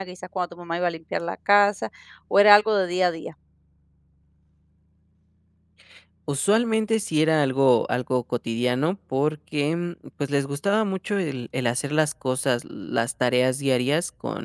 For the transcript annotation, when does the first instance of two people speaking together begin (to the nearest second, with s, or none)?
none